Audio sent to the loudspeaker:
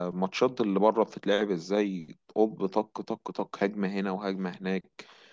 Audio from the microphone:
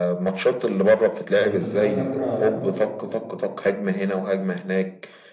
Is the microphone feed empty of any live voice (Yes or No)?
No